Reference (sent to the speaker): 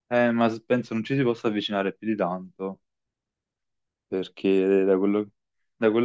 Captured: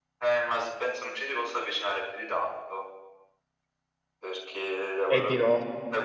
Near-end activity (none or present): present